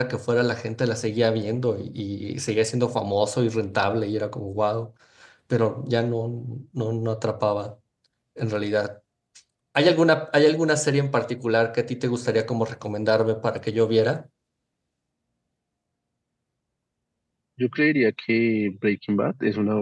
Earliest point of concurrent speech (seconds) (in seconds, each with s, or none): none